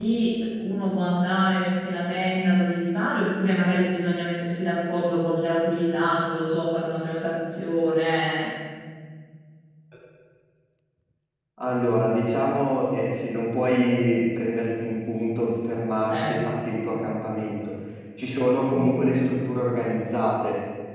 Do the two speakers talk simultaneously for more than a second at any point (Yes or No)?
No